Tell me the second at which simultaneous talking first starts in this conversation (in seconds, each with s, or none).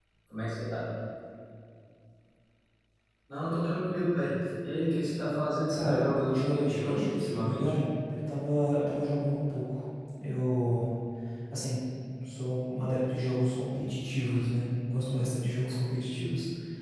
5.7 s